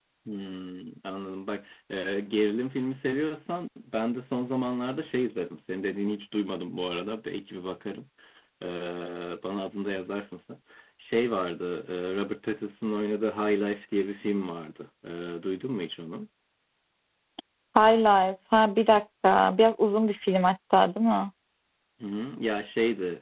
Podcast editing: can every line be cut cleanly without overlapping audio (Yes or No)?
Yes